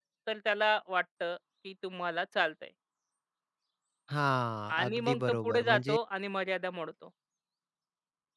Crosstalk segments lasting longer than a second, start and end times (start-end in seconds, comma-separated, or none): 4.7-6.0